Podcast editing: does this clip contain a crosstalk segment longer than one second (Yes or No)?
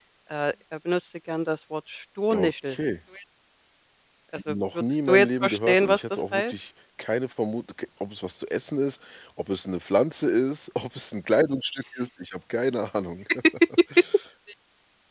Yes